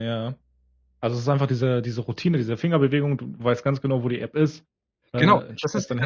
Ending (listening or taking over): taking over